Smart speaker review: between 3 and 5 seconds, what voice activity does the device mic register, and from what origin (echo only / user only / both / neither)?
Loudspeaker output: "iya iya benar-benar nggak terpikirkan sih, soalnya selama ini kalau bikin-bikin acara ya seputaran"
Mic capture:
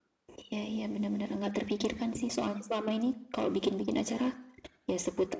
echo only